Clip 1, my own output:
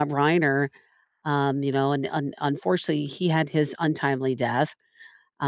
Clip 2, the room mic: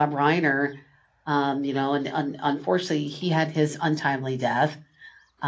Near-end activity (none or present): none